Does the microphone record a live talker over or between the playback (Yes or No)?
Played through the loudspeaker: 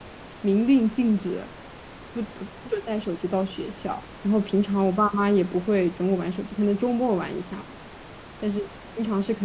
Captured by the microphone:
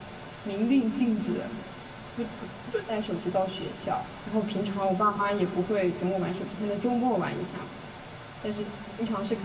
No